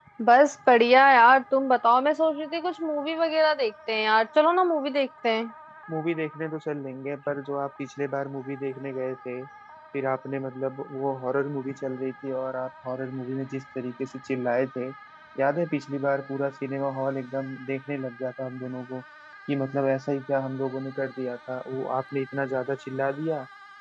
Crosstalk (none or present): none